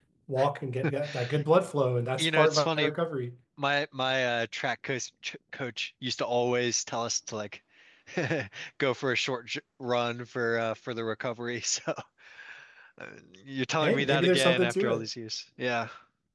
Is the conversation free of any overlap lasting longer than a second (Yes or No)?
No